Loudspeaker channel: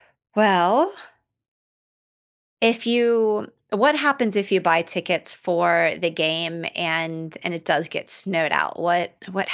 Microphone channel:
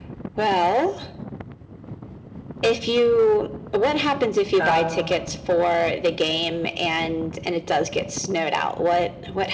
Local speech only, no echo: Oh,

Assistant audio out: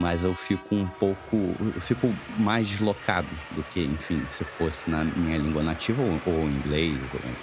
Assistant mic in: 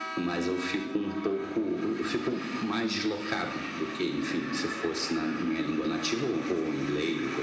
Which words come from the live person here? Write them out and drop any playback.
none

